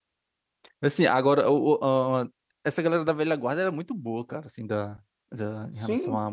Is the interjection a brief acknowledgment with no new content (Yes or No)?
Yes